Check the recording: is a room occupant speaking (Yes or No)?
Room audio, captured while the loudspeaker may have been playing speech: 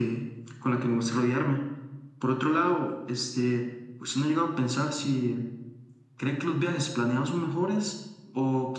No